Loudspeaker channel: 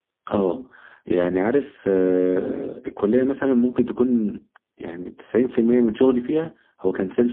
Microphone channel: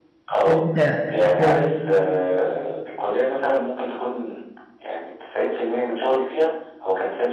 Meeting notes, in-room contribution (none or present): present